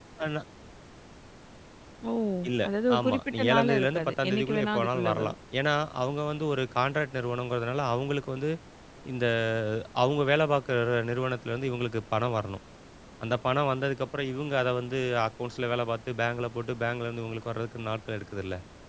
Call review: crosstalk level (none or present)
present